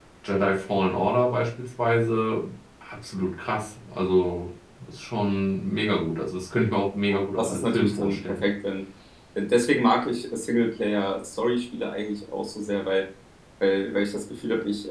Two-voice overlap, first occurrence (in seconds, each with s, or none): 7.1 s